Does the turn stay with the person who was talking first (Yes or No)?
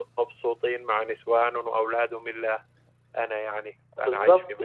No